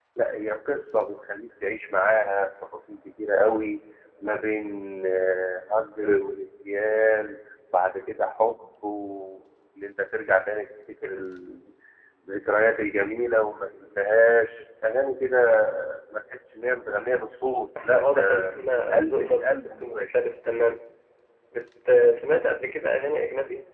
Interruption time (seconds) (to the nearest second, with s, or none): 18 s